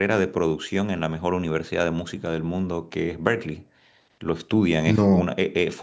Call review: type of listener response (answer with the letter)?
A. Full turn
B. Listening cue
B